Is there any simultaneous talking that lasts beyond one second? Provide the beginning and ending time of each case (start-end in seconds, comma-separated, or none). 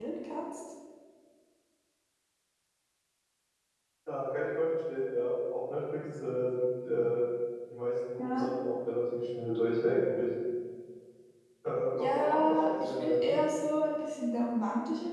11.9-13.4